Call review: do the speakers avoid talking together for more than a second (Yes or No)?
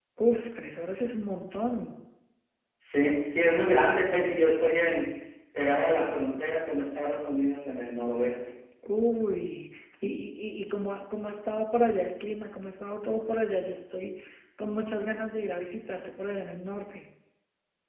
Yes